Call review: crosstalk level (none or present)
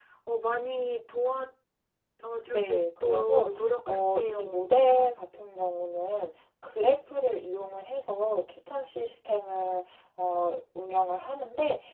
present